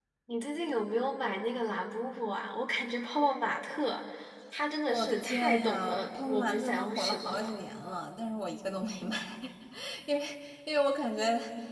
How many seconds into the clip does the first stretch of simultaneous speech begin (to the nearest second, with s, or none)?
5 s